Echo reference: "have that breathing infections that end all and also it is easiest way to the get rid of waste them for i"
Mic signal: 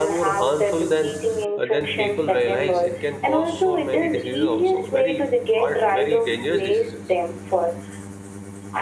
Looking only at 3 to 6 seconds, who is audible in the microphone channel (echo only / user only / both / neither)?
both